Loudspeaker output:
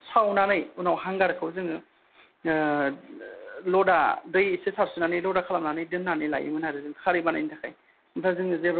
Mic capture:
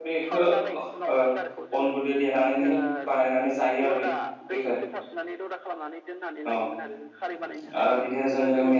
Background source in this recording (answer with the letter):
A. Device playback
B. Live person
A